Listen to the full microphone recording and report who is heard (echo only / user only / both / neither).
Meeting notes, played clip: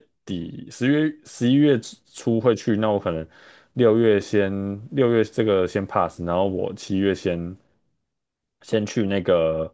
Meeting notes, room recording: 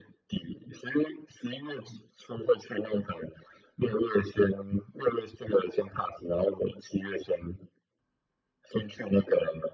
echo only